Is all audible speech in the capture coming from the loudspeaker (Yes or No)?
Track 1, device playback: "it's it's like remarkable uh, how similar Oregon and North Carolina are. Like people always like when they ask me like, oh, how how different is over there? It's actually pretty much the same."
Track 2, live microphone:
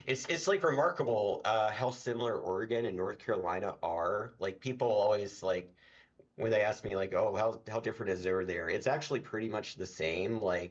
Yes